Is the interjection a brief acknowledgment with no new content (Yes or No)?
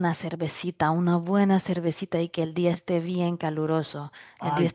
Yes